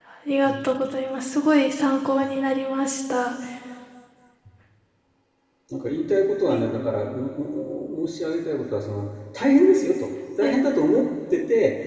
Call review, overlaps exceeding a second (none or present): none